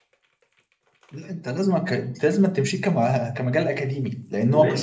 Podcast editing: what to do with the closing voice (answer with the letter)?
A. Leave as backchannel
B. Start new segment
B